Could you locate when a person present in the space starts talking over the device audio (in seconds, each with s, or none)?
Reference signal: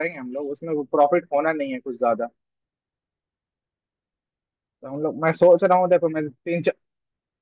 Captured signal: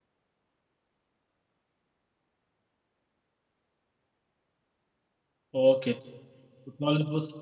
5.6 s